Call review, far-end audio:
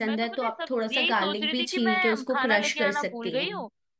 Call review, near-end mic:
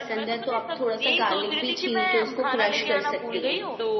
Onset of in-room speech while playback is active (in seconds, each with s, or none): 2.8 s